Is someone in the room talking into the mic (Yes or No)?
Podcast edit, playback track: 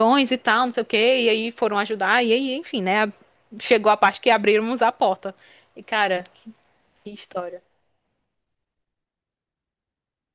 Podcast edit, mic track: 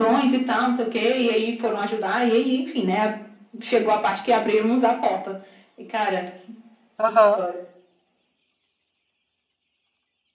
Yes